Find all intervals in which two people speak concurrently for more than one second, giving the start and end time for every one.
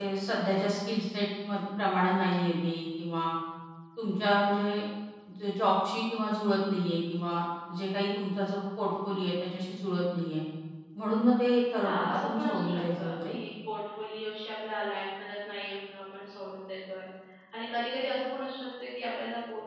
11.8-13.3

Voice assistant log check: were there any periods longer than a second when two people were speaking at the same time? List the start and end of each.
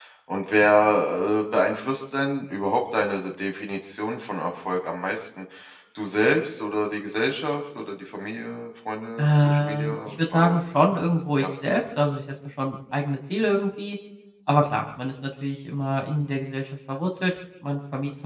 9.2-10.6

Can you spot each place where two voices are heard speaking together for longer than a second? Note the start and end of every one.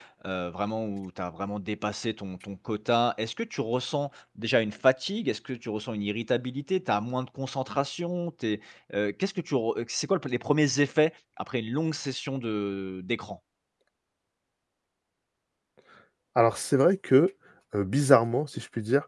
none

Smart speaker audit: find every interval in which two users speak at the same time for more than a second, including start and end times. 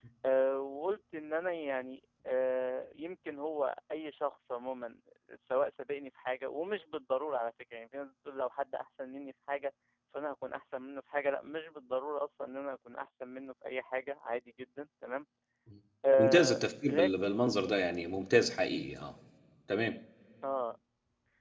16.2-17.4

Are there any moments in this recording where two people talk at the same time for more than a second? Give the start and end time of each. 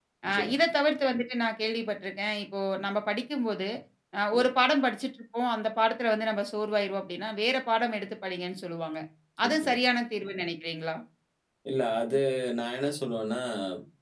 none

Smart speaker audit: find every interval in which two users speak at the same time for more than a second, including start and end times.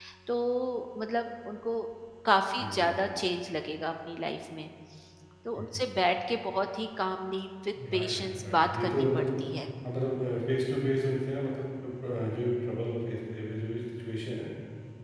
7.9-9.3

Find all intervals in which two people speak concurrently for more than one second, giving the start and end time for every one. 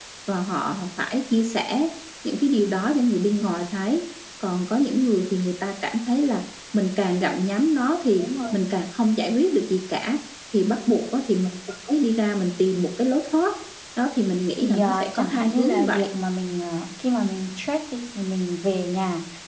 14.6-16.0

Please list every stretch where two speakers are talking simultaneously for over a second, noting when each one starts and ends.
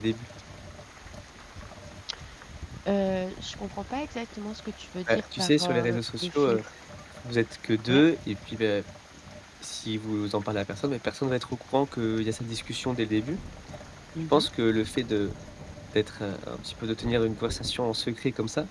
5.1-6.6

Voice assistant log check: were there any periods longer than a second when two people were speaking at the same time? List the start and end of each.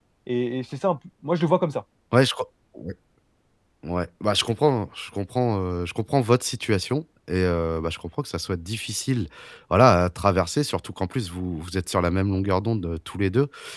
none

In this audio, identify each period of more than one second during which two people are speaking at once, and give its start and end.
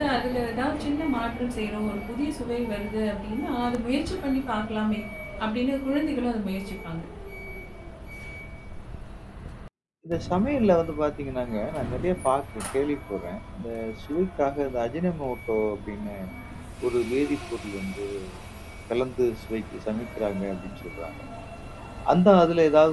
none

